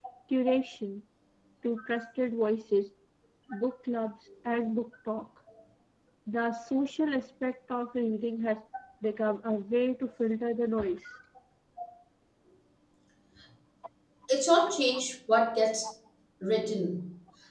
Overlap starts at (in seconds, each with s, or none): none